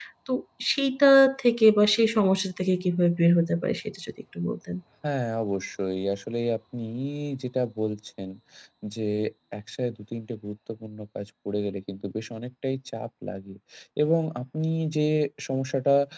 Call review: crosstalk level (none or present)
none